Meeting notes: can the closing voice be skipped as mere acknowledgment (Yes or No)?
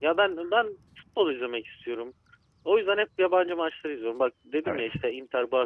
Yes